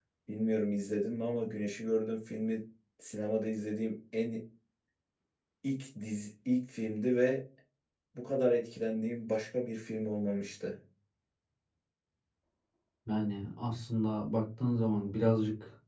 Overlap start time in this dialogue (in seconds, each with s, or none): none